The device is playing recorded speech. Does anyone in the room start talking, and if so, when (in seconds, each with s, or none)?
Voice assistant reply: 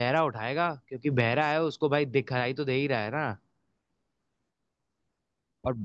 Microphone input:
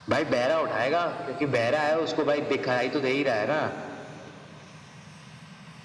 none